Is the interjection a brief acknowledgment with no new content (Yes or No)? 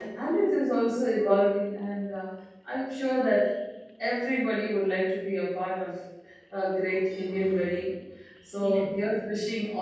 Yes